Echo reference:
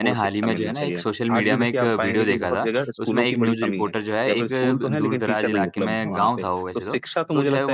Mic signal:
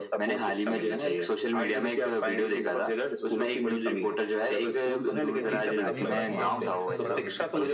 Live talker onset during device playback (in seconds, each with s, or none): 5.4 s